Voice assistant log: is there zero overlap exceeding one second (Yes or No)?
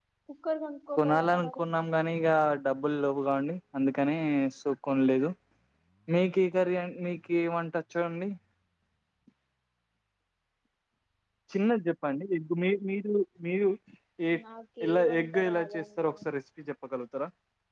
No